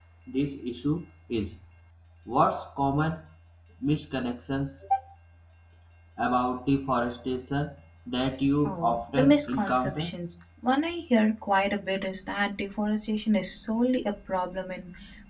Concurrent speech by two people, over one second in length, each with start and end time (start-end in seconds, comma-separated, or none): 8.7-10.1